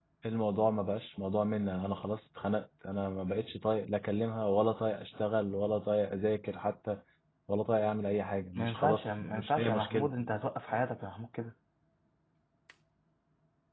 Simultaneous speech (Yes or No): Yes